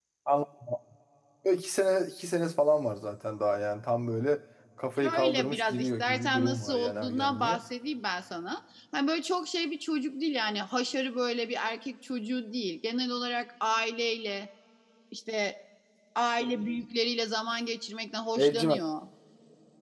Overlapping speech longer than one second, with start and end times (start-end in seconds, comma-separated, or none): 5.0-7.6